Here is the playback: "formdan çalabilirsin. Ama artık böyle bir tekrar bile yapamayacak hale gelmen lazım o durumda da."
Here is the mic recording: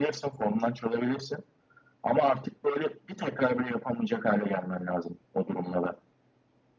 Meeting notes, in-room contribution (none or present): none